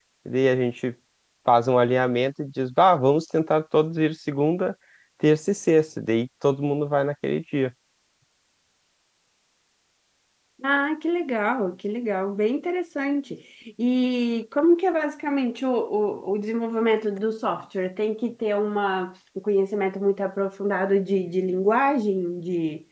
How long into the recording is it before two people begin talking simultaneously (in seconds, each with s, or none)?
none